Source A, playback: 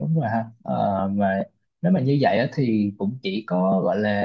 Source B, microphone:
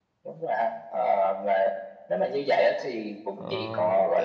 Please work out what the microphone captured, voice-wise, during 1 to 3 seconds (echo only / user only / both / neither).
echo only